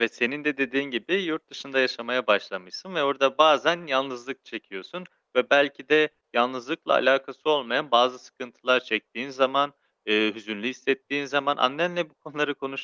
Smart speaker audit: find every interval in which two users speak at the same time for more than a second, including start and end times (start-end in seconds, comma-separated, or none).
none